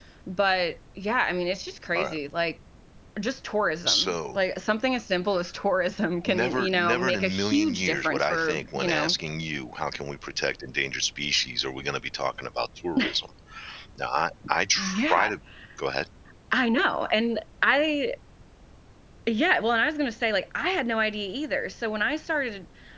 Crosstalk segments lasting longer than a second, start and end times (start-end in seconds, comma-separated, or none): 6.3-9.1